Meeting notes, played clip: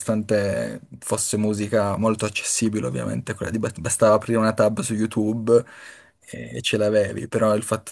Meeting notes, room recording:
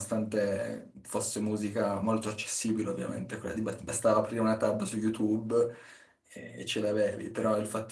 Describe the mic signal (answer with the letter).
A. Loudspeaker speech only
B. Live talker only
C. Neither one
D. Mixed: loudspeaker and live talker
A